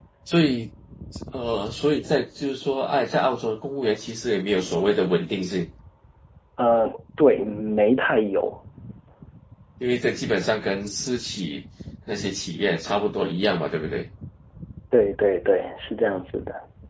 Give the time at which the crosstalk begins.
none

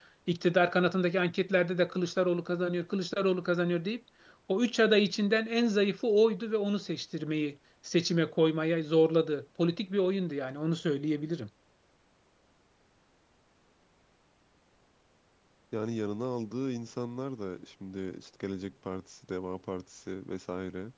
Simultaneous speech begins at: none

